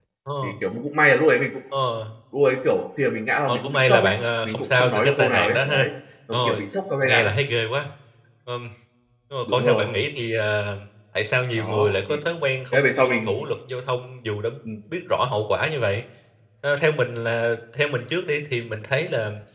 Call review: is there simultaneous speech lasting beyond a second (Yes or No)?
Yes